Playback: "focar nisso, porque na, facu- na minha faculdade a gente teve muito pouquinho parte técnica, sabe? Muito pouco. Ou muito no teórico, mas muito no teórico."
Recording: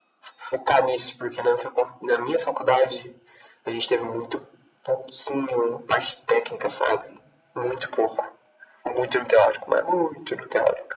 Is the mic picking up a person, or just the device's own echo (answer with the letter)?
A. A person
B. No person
B